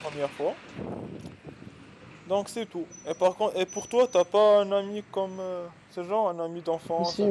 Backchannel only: No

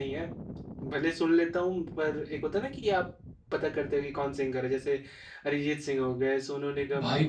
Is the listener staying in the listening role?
No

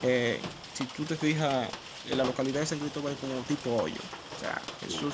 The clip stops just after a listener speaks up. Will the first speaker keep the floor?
Yes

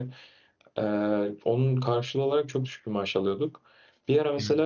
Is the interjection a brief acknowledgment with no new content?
Yes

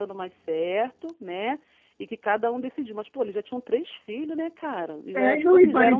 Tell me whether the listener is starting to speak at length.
Yes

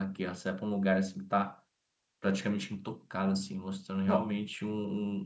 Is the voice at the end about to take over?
No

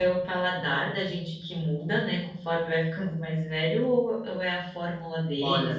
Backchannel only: No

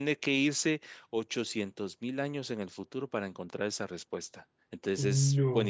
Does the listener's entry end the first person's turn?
No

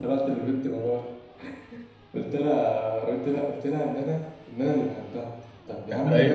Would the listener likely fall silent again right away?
Yes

